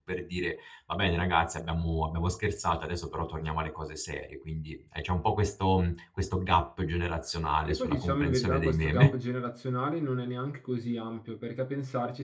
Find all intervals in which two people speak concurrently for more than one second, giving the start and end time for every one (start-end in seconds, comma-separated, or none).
7.7-9.1